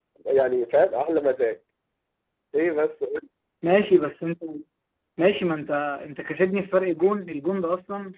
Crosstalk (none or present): none